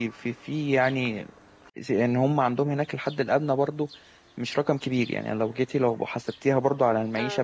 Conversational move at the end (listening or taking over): taking over